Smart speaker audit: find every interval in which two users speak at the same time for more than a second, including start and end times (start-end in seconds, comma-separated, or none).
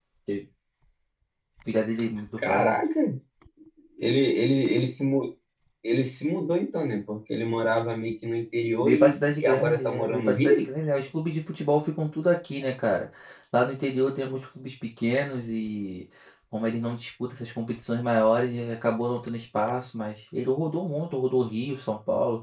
8.8-10.6